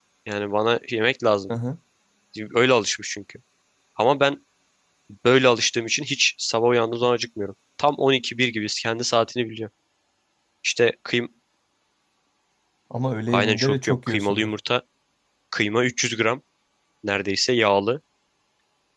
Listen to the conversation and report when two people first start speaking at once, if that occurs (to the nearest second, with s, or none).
13 s